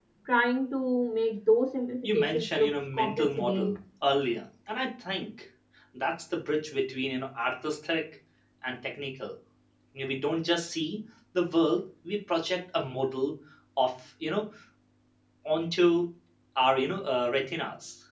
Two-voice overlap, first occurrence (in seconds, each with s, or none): 2.0 s